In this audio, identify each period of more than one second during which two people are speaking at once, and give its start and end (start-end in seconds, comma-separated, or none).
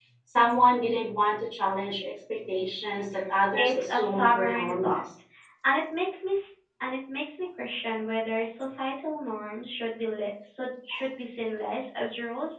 3.6-5.0